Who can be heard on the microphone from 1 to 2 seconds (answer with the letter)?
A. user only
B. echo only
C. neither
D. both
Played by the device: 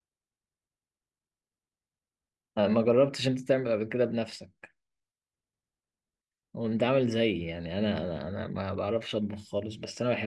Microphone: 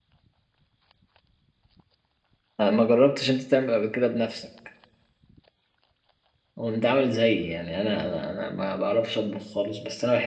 C